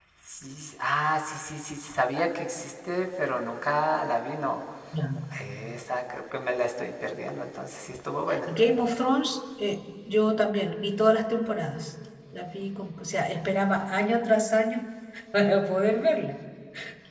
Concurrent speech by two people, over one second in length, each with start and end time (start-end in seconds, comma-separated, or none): none